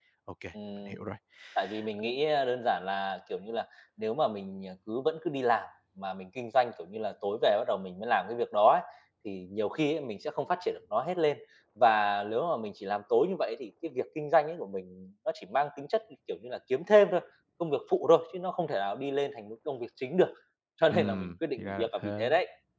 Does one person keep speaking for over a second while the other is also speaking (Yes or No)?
Yes